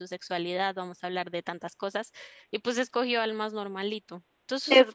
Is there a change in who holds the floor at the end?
Yes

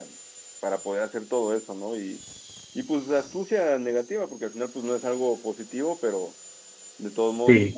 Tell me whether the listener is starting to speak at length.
No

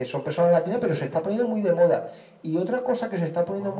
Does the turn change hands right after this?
No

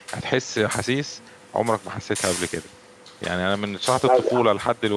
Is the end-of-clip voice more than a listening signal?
No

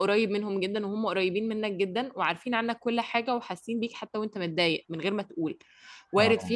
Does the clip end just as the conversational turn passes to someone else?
No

